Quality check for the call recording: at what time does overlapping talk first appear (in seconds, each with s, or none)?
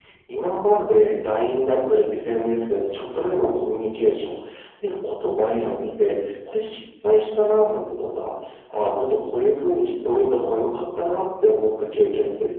none